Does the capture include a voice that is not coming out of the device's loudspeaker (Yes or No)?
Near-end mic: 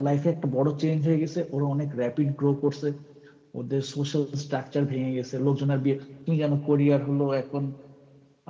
No